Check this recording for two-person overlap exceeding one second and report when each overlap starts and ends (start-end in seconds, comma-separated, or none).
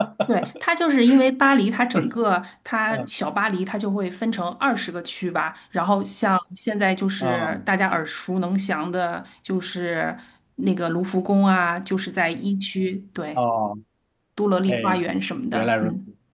none